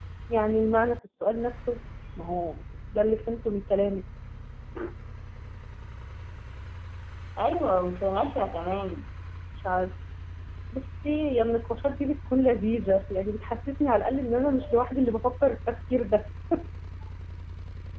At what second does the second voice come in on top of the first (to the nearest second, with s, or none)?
none